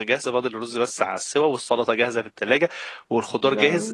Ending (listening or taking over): listening